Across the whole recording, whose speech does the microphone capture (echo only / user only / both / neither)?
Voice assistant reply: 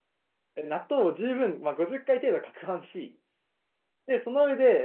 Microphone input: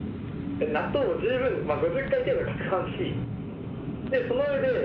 echo only